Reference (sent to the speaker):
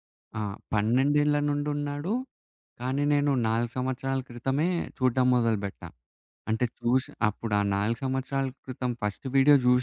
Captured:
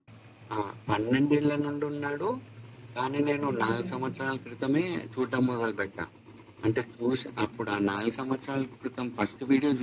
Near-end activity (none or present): present